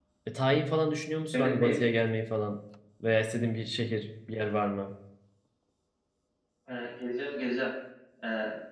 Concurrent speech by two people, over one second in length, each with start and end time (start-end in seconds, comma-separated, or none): none